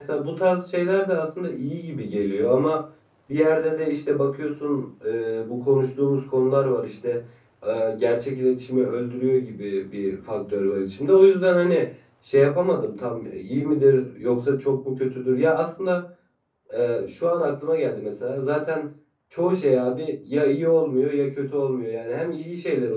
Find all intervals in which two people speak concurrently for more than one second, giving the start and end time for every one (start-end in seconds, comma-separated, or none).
none